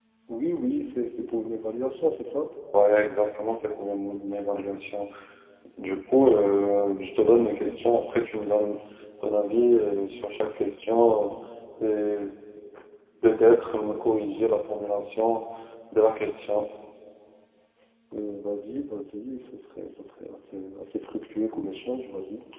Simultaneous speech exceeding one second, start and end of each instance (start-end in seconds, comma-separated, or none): none